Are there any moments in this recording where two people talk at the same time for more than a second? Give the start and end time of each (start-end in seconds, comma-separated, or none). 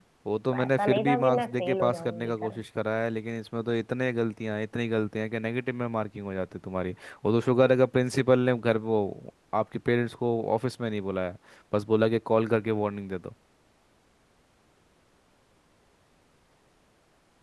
0.6-2.6